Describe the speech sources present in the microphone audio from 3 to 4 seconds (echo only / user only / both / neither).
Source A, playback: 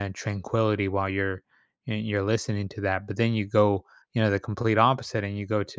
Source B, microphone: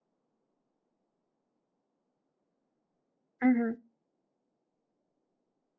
user only